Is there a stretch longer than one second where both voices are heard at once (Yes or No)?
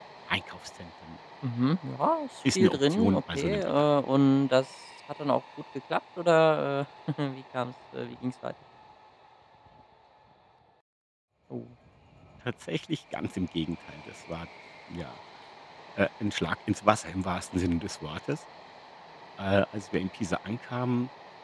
Yes